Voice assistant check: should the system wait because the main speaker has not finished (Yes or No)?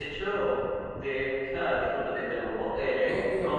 Yes